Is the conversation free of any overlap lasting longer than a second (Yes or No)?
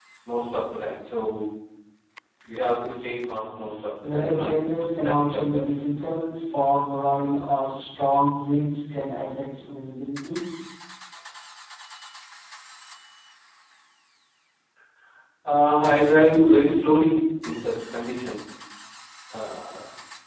No